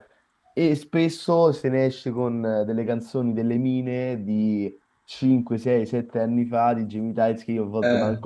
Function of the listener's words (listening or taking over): listening